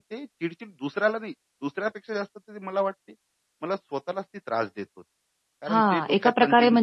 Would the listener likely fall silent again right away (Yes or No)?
No